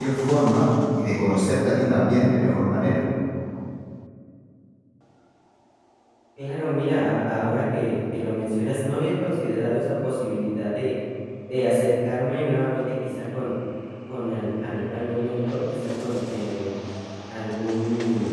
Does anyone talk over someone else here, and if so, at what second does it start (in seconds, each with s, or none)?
none